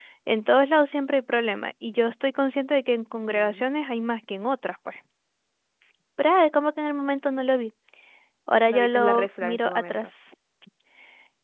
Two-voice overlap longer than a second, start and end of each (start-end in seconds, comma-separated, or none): 8.7-10.1